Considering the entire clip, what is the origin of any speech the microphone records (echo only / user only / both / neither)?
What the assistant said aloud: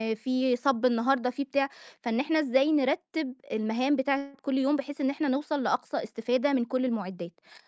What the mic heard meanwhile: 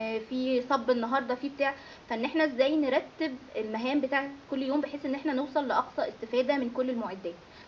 echo only